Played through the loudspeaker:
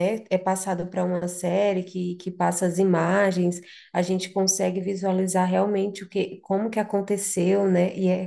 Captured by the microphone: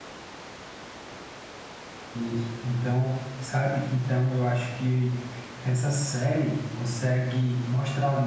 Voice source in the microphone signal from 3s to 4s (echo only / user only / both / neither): user only